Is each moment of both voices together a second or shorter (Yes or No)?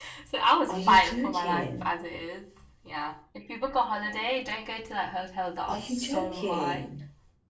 No